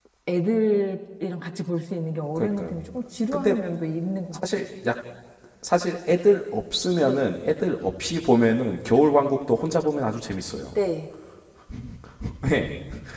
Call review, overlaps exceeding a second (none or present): none